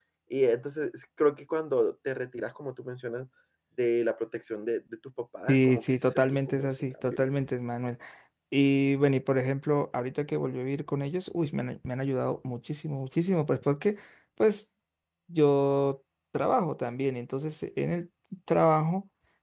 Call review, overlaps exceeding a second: present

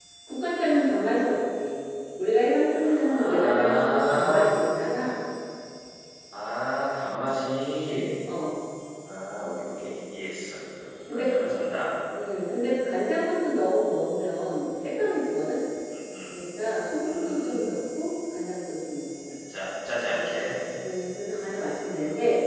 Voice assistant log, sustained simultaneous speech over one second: present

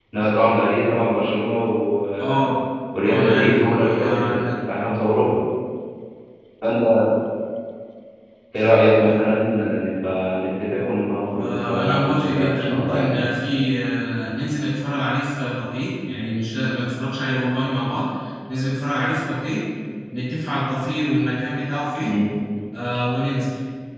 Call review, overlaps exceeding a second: present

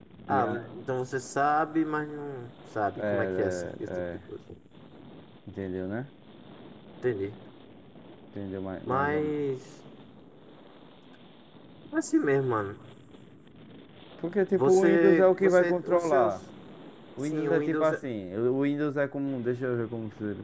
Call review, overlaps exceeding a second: present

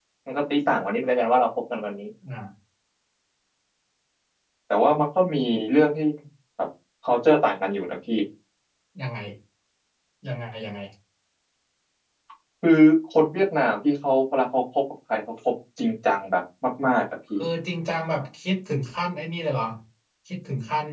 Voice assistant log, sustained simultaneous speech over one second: none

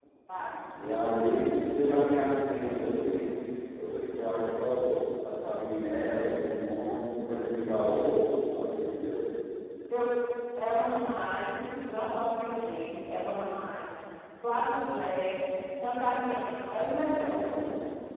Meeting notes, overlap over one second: none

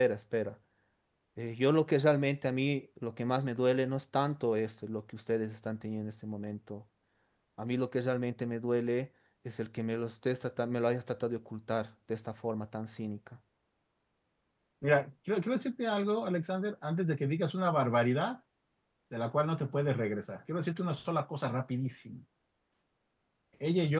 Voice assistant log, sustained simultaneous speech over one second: none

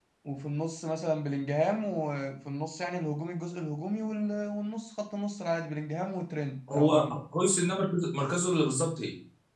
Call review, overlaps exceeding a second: none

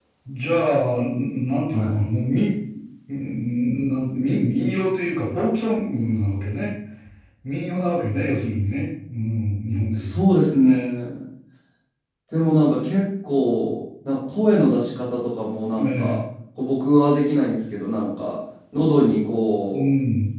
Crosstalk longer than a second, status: none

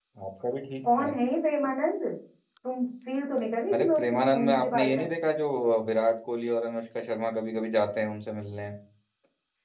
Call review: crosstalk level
present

